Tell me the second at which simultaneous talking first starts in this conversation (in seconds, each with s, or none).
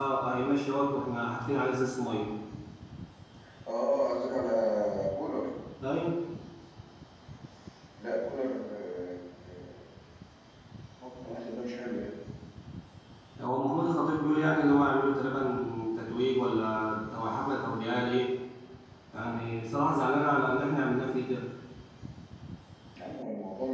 none